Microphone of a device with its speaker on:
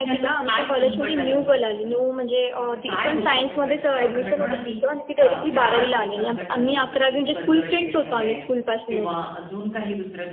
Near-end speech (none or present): present